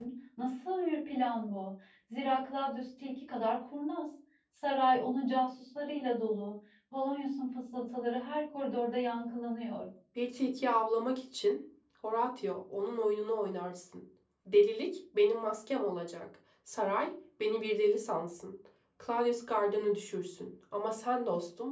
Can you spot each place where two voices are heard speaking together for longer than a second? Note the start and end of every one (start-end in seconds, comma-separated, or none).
none